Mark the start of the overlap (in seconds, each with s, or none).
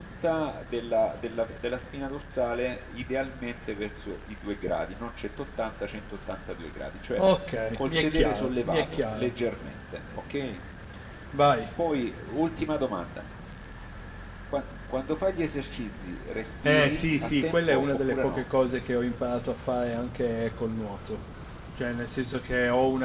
7.8 s